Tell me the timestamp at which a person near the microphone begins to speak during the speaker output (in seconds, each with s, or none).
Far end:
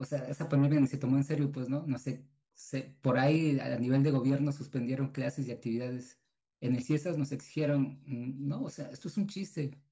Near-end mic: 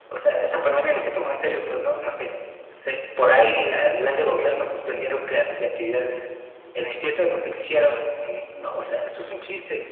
none